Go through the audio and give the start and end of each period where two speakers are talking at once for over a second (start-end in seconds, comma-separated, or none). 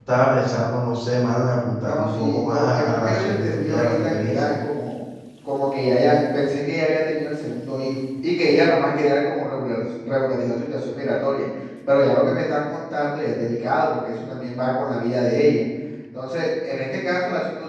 1.9-4.5